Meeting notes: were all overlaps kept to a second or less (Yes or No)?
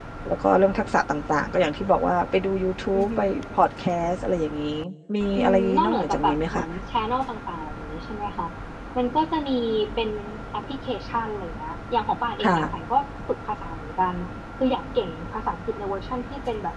No